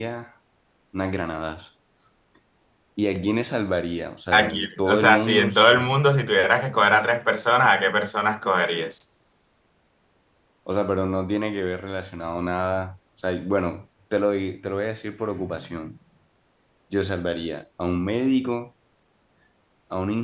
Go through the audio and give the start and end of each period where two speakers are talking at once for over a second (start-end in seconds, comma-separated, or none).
4.3-5.9